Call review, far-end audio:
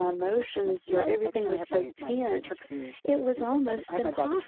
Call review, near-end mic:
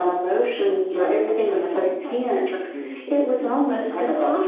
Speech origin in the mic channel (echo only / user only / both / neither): echo only